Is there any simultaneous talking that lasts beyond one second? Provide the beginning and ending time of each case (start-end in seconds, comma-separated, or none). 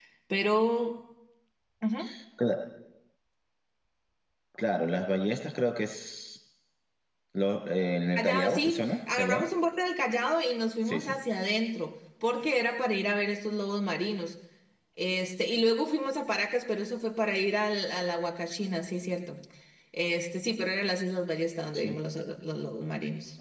8.2-9.4